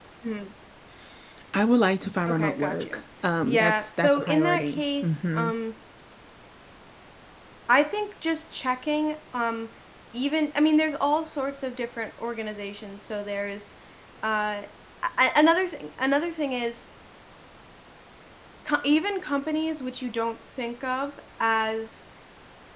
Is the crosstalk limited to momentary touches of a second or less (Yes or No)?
No